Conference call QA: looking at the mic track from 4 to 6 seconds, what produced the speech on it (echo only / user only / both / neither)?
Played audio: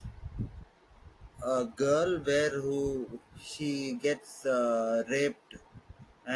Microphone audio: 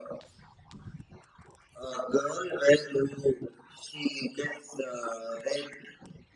echo only